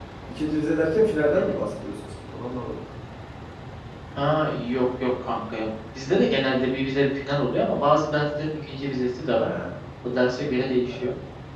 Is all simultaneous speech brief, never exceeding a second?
Yes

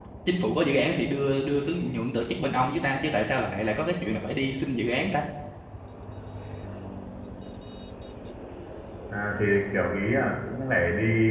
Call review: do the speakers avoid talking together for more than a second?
Yes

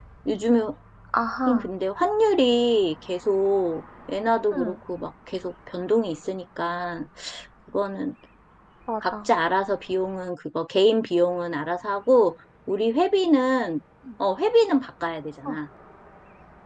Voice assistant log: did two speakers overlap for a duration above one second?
No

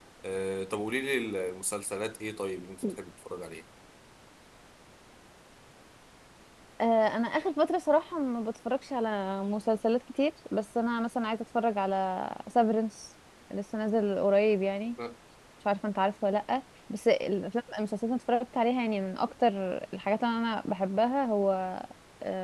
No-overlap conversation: Yes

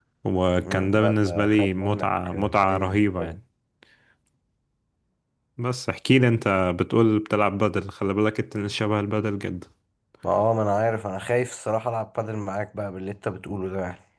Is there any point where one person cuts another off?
Yes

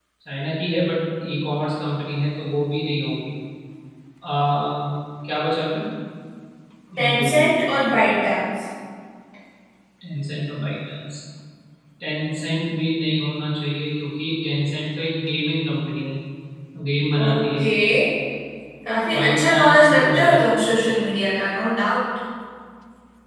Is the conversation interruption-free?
No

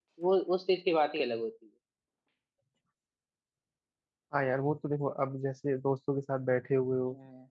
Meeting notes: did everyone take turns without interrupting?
Yes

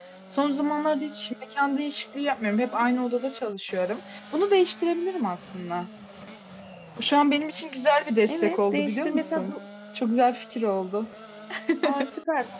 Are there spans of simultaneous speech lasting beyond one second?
Yes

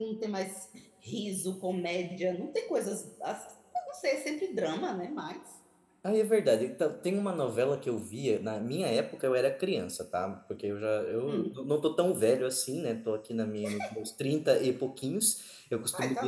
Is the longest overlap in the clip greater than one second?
No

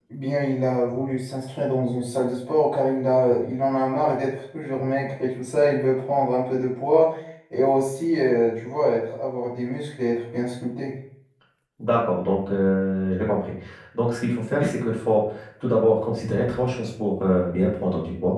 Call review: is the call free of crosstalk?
Yes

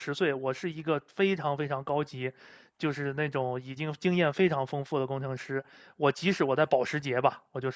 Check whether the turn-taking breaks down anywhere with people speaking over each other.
No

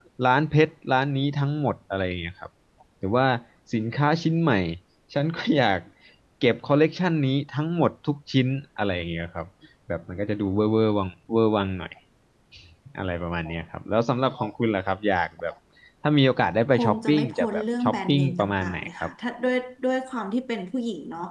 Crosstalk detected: Yes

